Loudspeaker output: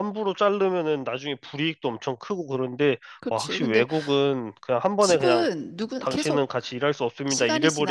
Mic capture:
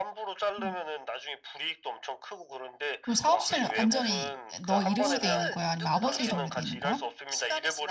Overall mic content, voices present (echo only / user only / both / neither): both